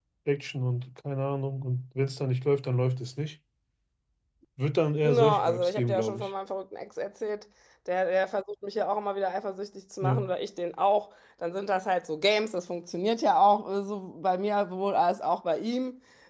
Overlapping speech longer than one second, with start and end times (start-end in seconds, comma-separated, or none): 5.0-6.3